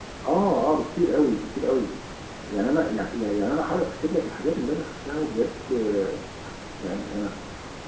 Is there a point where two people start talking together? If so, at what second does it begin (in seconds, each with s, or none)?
none